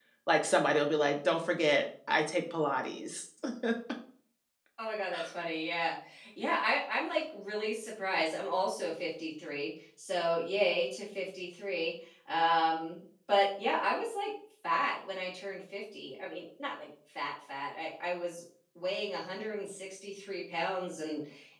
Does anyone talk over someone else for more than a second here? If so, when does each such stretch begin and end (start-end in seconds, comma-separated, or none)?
none